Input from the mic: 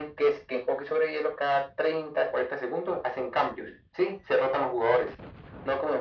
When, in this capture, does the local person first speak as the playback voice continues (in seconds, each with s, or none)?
none